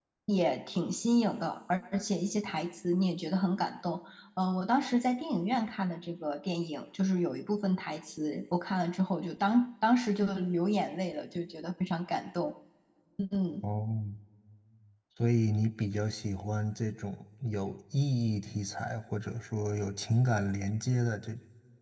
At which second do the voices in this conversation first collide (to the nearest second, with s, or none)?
none